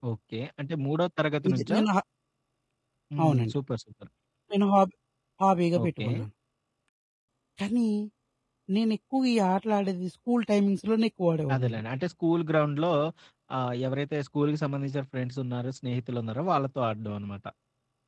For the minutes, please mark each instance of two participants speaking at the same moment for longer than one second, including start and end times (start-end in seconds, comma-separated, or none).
none